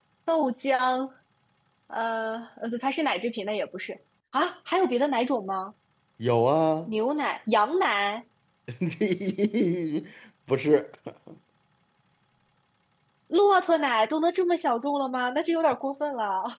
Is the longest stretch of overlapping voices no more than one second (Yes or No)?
Yes